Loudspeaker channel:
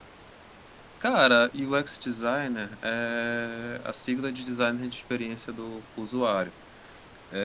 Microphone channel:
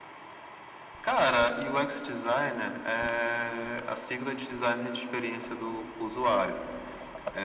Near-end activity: none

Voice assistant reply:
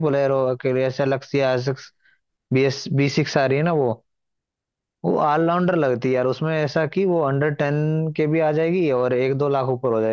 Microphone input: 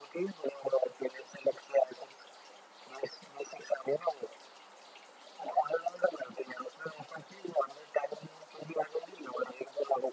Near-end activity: none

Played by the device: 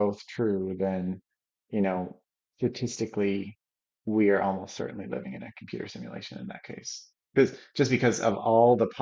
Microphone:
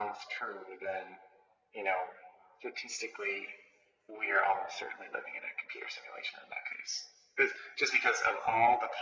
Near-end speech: none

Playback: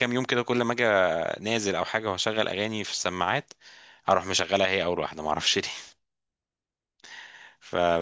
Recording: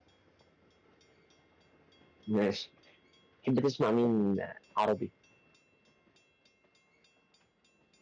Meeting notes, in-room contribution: present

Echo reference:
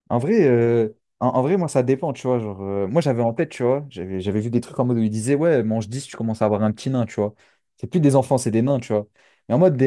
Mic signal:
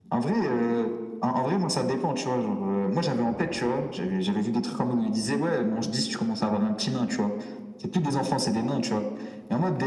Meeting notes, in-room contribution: none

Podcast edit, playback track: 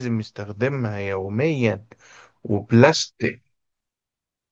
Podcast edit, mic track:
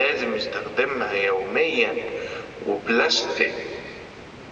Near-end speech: none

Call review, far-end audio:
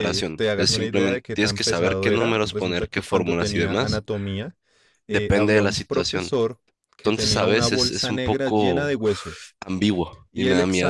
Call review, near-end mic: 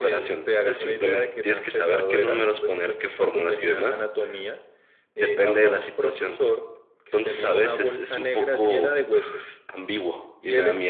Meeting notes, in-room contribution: none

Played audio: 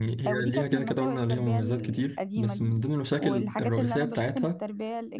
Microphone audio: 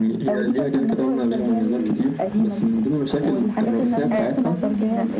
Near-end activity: present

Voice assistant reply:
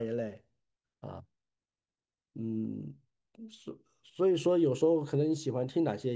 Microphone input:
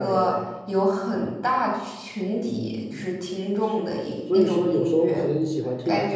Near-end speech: present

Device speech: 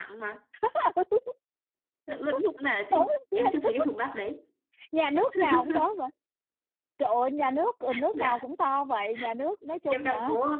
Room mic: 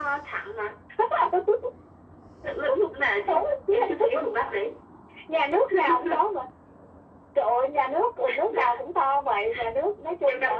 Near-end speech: none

